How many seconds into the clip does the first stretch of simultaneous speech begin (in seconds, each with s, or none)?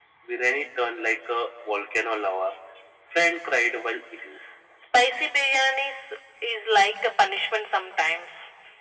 none